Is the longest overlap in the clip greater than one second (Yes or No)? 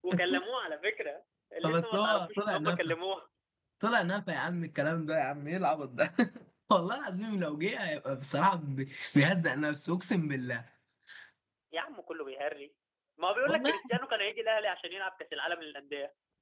Yes